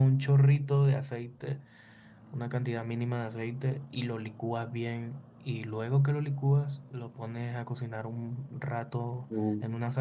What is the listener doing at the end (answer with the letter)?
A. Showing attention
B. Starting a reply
A